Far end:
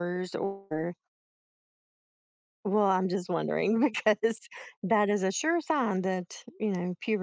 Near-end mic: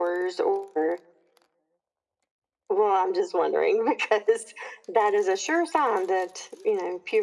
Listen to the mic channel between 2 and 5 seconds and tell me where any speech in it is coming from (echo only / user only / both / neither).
echo only